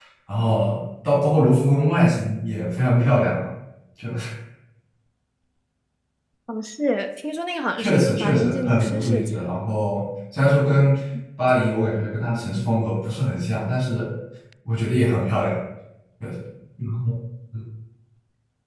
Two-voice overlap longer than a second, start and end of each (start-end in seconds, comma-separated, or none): 7.8-9.5